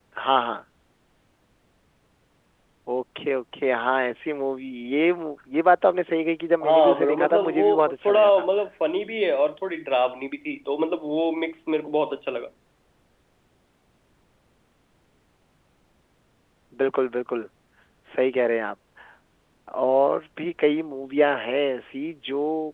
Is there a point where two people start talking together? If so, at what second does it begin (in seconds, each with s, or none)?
6.6 s